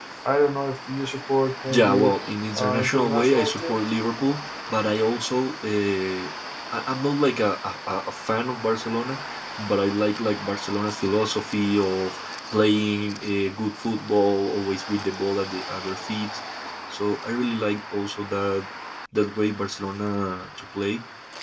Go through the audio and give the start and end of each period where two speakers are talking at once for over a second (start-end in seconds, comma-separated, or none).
2.5-3.8